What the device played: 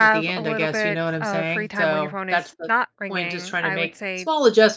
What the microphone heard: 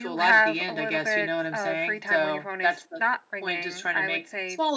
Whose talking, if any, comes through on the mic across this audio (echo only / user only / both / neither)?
echo only